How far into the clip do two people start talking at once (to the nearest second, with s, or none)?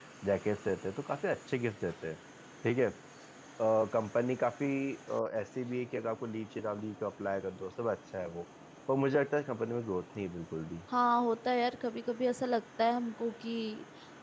none